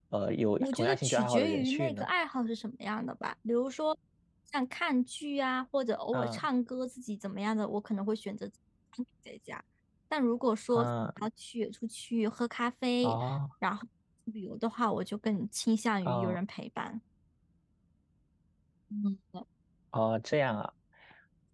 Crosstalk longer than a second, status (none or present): present